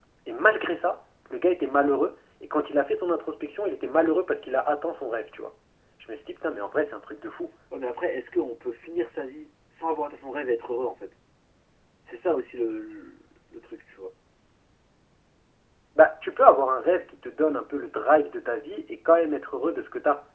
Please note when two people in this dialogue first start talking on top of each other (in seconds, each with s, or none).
none